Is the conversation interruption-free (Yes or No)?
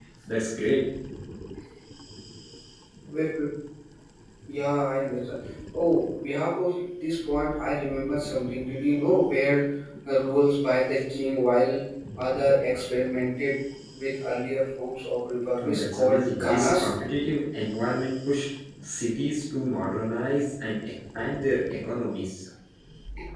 No